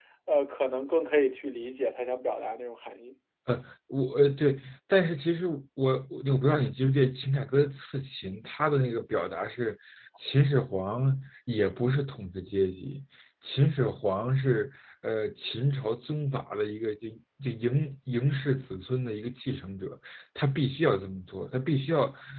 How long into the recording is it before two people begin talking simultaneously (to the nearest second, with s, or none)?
none